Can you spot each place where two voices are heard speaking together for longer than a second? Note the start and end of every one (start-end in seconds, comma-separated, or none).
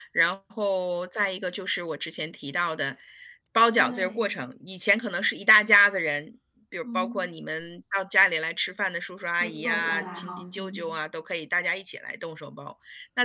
9.4-10.8